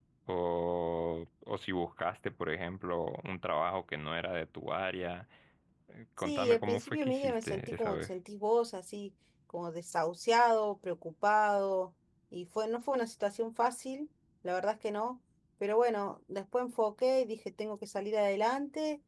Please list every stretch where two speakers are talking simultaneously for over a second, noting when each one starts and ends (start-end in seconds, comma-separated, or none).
6.2-8.1